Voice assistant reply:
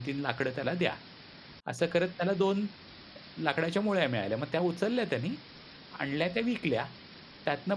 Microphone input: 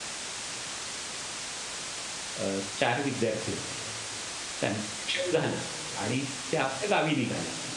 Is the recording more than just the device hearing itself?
Yes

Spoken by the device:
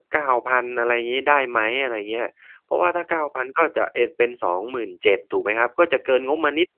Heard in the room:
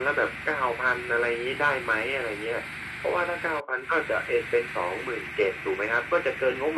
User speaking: No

